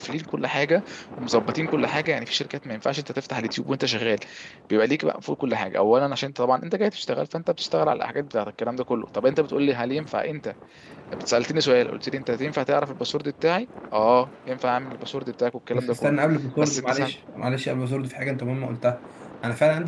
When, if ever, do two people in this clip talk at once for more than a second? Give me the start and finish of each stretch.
none

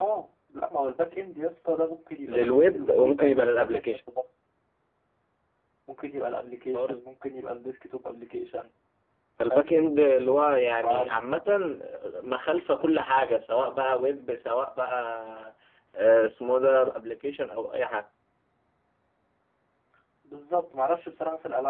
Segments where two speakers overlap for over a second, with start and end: 2.3-4.0

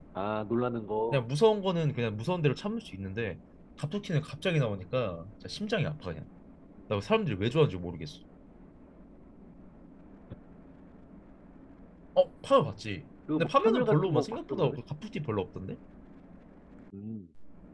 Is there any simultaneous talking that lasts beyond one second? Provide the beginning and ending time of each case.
13.4-14.8

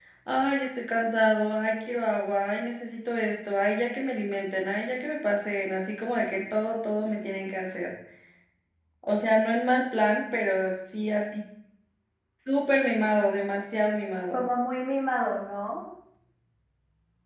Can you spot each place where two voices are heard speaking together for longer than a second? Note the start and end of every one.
none

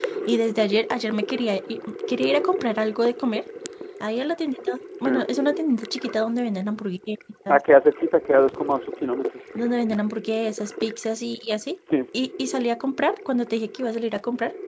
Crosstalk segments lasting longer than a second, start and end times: none

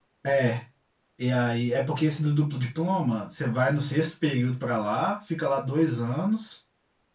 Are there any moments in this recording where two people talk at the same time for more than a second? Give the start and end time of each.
none

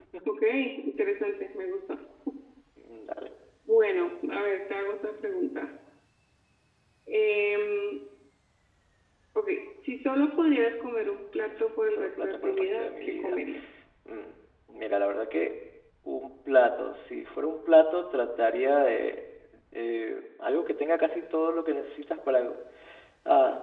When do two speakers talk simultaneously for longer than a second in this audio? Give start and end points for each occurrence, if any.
11.9-13.4

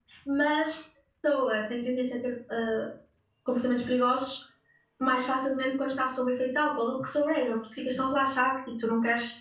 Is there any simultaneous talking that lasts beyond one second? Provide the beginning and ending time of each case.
none

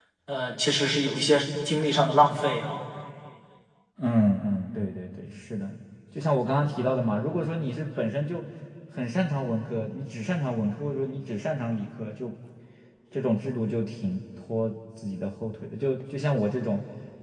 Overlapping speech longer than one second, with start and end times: none

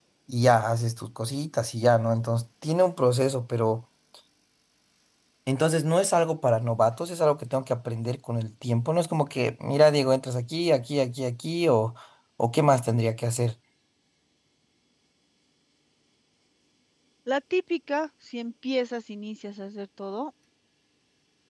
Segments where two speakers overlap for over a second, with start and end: none

